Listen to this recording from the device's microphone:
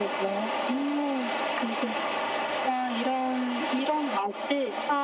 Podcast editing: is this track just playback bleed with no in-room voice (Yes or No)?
Yes